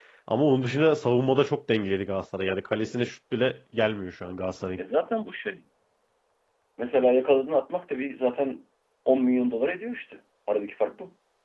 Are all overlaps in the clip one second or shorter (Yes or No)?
Yes